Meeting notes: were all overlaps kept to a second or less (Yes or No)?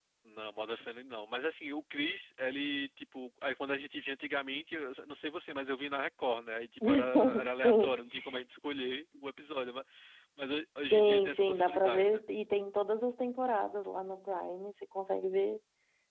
No